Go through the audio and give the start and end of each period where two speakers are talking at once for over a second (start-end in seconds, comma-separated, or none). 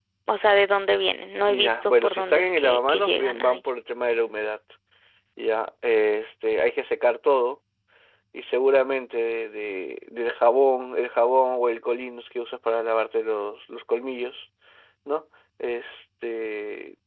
1.5-3.6